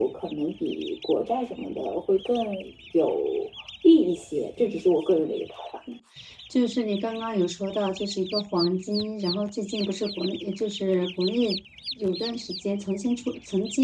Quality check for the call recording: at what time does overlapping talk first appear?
none

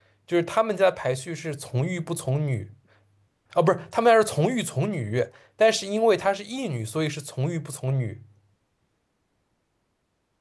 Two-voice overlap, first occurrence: none

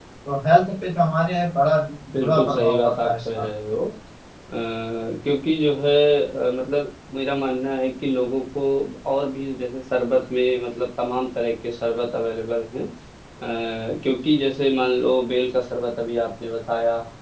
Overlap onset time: 2.1 s

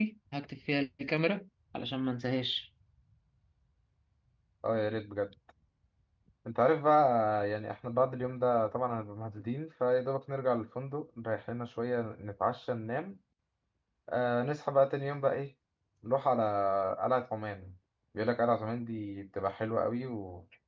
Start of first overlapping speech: none

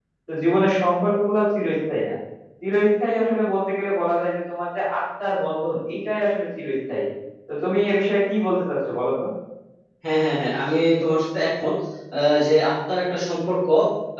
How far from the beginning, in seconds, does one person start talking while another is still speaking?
none

